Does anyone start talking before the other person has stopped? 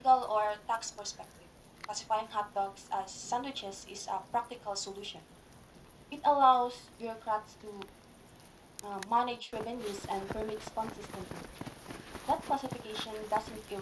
No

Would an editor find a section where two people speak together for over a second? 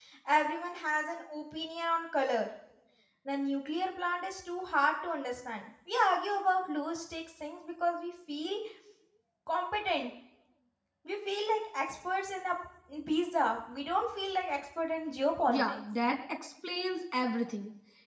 No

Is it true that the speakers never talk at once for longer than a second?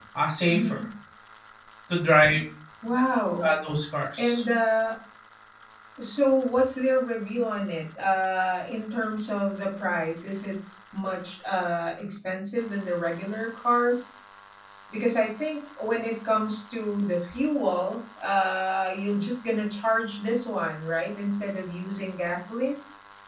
Yes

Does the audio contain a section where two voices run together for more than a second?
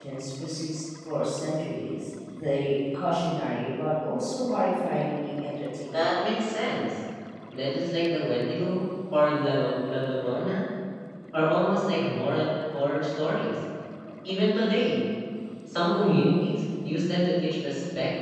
No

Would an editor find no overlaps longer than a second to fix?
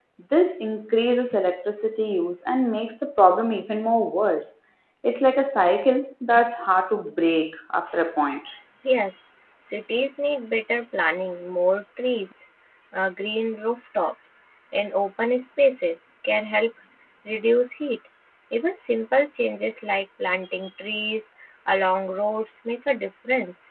Yes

